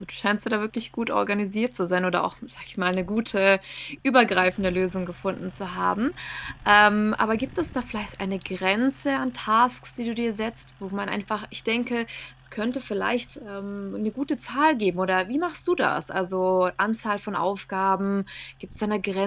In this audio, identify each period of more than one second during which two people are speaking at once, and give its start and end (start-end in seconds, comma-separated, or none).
none